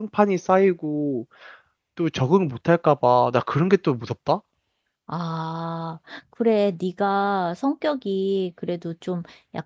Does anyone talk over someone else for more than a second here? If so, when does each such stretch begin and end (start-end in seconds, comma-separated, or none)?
none